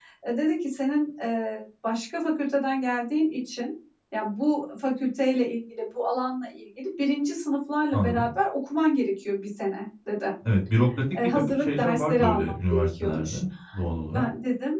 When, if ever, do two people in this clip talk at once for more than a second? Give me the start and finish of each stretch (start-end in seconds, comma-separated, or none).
11.2-13.4